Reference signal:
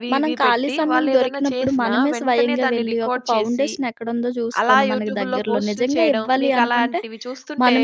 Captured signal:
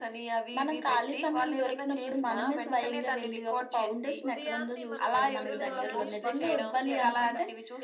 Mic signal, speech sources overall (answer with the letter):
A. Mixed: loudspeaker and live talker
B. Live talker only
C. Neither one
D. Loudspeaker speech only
A